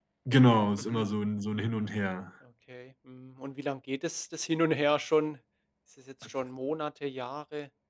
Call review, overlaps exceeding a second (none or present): none